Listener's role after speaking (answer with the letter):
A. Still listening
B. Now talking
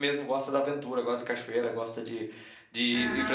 B